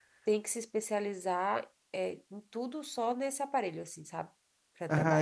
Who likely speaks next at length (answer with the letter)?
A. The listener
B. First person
A